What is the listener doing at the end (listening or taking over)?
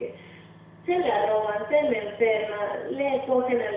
listening